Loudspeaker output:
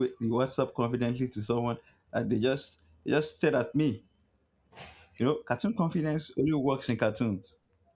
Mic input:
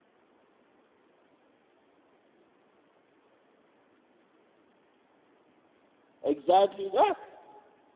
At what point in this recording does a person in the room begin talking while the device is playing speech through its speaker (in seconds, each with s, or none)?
6.2 s